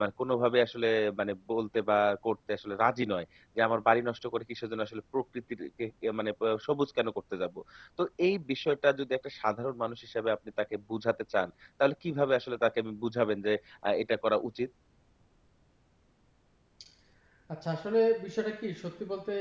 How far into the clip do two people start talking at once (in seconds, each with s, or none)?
none